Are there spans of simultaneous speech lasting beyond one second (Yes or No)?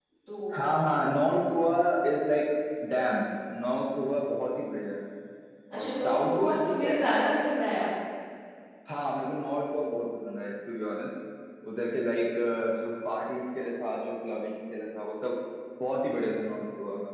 Yes